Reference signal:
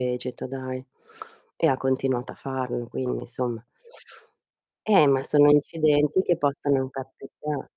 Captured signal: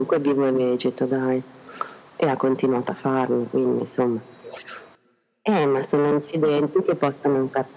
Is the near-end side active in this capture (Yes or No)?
No